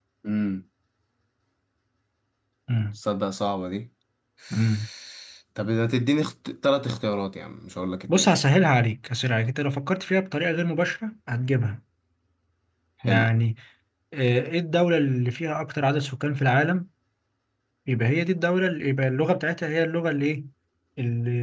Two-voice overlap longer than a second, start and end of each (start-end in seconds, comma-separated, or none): none